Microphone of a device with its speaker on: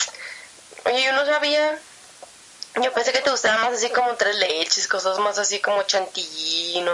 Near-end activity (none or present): none